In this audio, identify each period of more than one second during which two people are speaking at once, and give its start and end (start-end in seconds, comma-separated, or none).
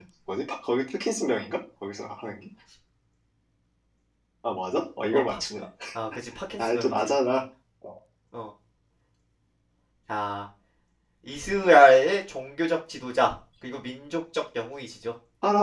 none